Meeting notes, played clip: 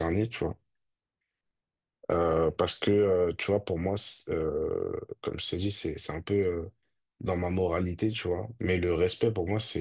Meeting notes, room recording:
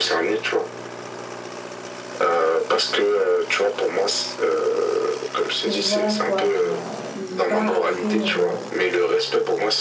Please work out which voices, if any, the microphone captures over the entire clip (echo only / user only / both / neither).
both